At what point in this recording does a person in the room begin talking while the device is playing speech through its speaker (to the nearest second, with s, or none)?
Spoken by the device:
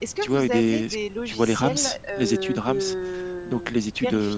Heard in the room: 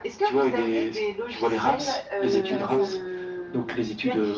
2 s